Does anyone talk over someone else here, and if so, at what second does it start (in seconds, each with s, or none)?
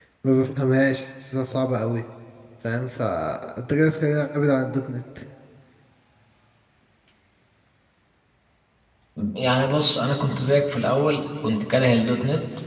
none